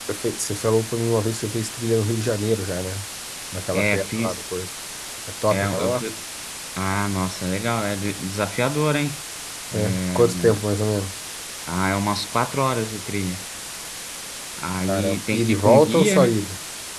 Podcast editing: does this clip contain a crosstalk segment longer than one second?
Yes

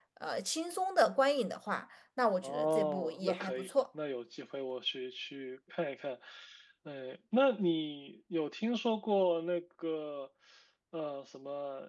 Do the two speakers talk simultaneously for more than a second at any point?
Yes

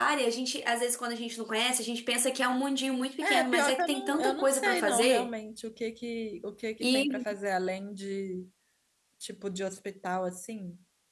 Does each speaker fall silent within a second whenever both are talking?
No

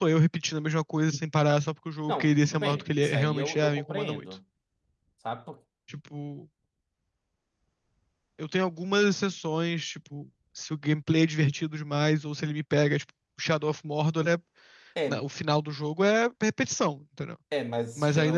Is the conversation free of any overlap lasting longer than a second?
No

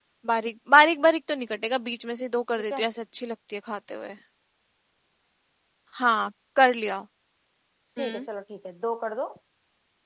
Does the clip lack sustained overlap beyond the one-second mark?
Yes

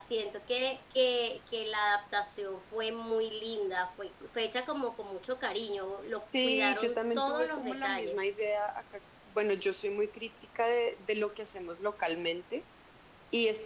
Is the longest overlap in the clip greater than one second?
Yes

